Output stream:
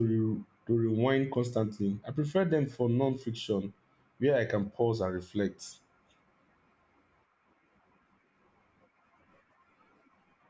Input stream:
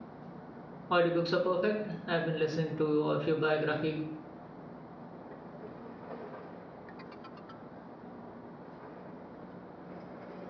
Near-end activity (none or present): present